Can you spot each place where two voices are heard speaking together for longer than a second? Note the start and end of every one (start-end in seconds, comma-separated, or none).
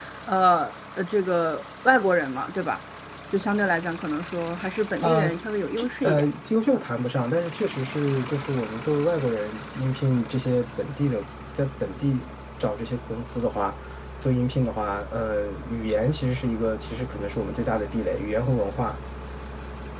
none